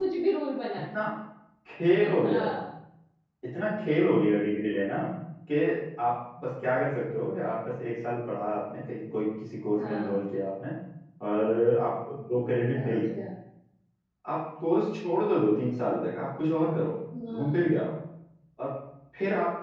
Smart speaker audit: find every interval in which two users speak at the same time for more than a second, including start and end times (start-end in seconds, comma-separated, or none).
none